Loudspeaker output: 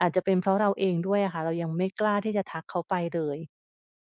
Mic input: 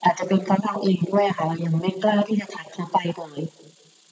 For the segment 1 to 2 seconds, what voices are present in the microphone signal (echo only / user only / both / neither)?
echo only